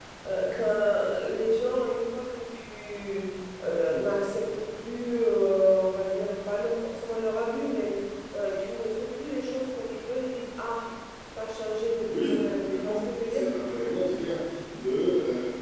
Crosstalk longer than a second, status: present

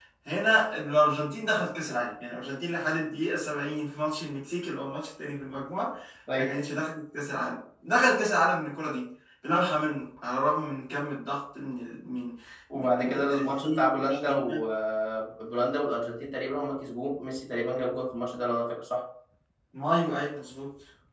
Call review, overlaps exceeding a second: present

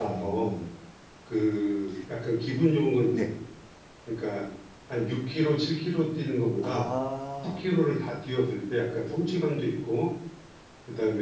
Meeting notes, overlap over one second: none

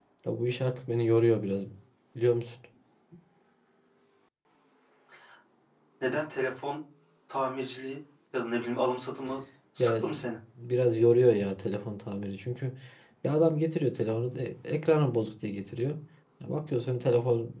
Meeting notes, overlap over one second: none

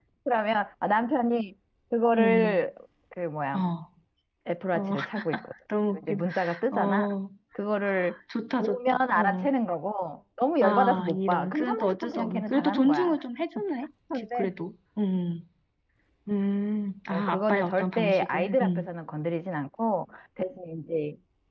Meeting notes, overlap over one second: present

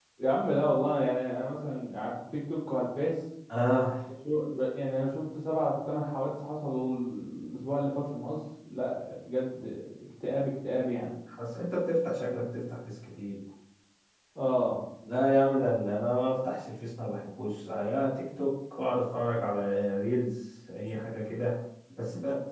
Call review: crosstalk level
none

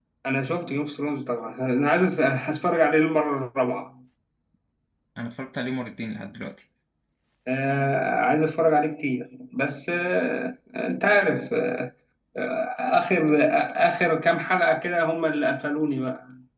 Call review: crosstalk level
none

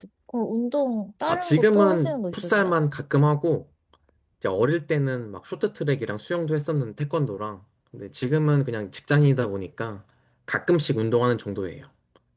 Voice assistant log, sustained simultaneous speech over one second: present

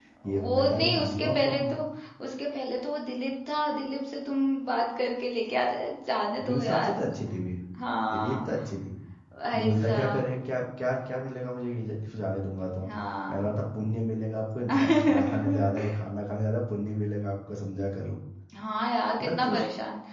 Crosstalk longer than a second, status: present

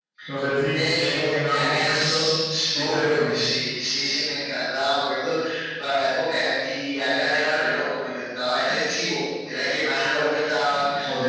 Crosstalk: present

